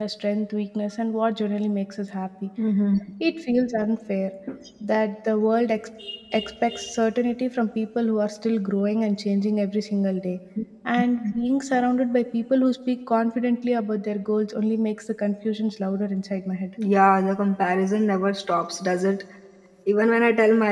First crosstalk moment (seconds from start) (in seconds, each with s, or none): none